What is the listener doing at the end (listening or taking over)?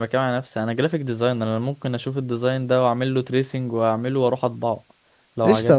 taking over